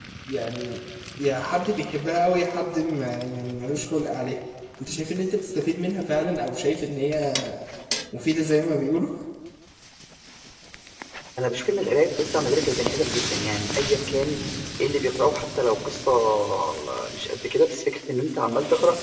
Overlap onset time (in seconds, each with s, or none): none